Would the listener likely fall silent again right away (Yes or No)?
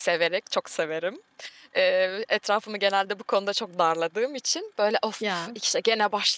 Yes